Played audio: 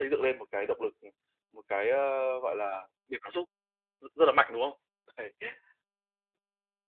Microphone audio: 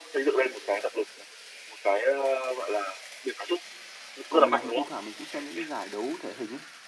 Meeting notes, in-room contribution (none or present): present